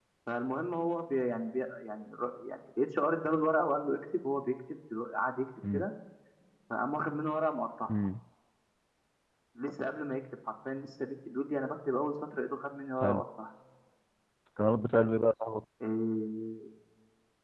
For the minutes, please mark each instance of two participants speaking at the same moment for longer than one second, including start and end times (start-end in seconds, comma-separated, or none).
none